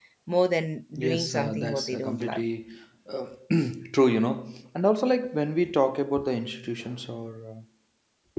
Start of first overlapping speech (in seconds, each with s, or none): 1.0 s